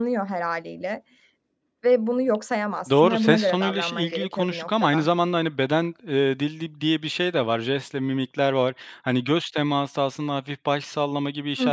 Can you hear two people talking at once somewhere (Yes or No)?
Yes